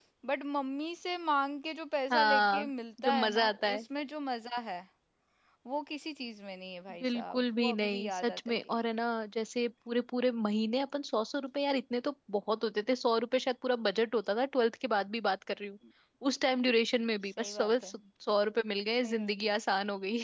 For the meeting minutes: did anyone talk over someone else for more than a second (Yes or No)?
Yes